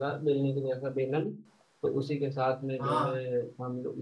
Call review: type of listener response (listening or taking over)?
listening